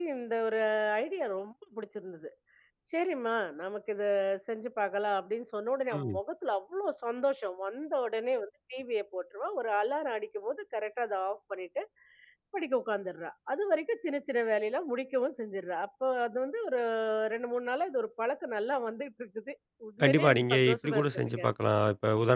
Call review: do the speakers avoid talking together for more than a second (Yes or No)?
No